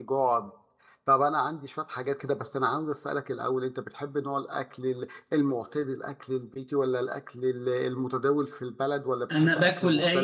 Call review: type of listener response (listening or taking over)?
taking over